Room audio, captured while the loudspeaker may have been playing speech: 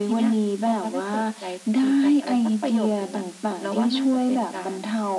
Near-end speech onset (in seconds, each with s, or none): none